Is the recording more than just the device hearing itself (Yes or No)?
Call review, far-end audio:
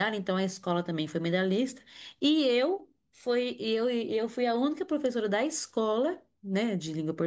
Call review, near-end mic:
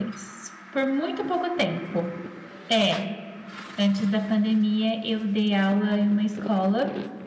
Yes